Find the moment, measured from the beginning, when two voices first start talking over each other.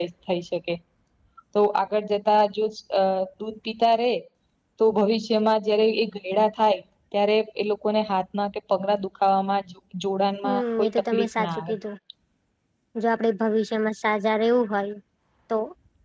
10 s

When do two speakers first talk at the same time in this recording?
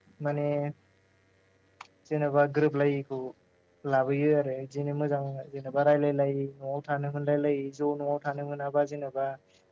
none

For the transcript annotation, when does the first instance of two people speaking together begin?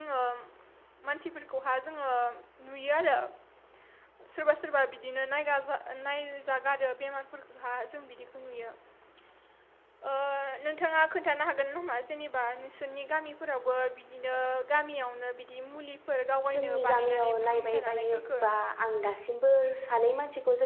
16 s

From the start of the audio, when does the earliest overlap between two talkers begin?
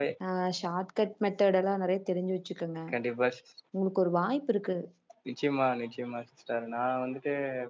none

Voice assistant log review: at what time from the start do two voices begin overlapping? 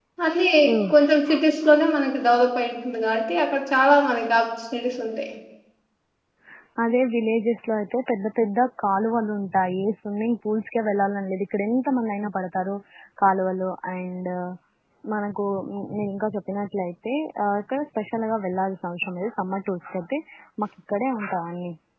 none

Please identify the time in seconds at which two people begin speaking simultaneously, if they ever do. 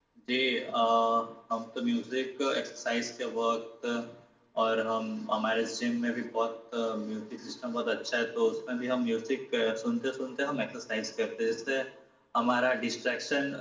none

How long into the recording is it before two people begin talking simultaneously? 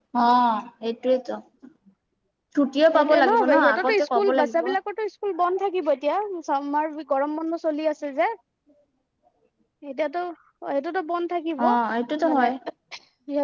3 s

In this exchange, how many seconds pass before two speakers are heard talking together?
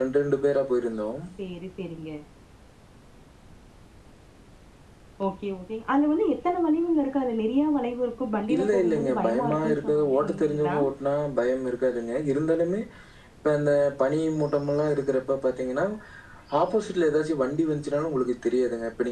8 s

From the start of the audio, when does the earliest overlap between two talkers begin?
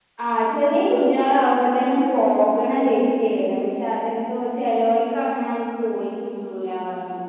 none

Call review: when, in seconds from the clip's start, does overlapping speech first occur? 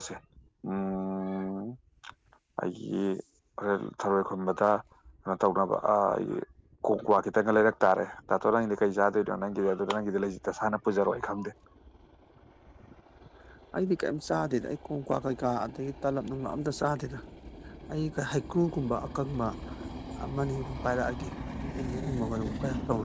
none

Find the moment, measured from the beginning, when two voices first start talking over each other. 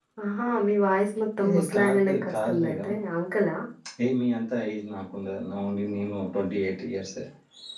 1 s

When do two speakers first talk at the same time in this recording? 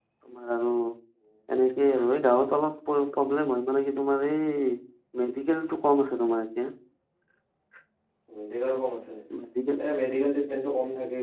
none

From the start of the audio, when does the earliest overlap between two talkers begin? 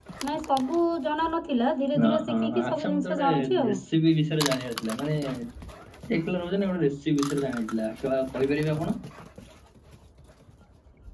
2 s

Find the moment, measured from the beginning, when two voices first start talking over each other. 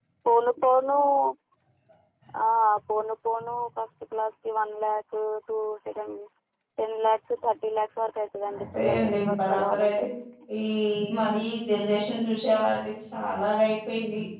8 s

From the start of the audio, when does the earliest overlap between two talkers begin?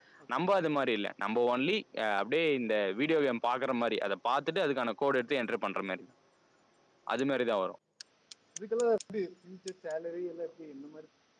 none

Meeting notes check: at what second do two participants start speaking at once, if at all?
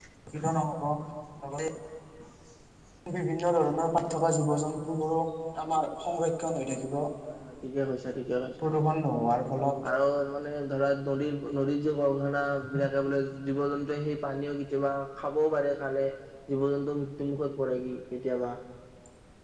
none

